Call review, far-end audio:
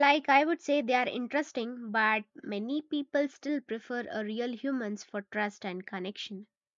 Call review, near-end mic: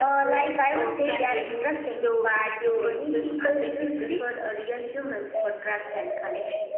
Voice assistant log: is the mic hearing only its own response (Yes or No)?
No